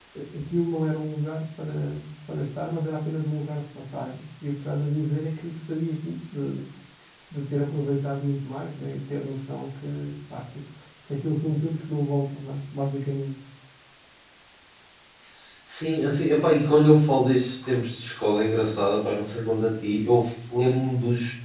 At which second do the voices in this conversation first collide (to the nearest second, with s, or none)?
none